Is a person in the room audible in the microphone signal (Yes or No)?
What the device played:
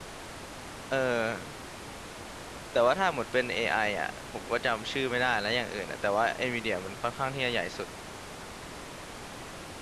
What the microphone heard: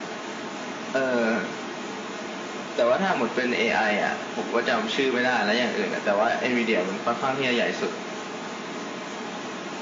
No